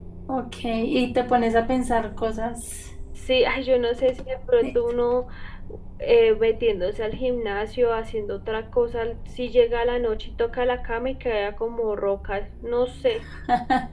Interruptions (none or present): none